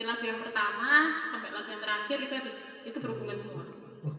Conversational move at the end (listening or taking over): taking over